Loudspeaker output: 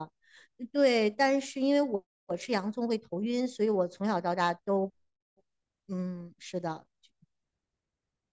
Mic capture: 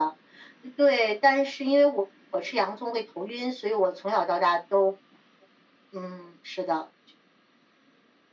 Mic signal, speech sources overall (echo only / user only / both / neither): echo only